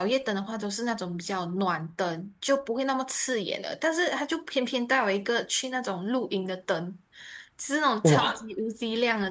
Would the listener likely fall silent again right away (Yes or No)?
Yes